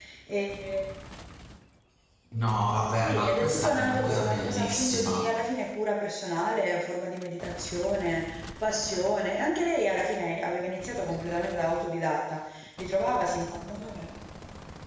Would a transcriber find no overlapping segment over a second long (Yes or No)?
No